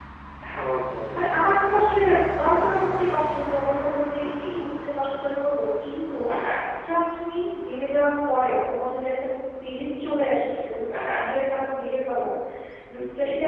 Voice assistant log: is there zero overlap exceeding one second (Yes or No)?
Yes